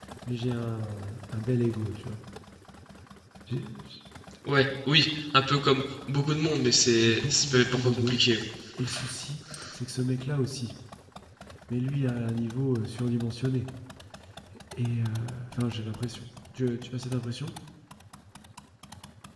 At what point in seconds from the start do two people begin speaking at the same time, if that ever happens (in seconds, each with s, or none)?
6.9 s